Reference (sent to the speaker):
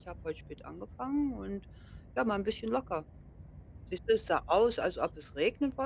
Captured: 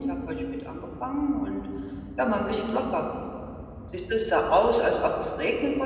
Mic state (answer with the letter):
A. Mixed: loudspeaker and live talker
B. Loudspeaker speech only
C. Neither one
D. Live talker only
B